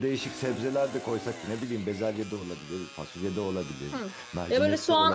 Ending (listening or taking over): taking over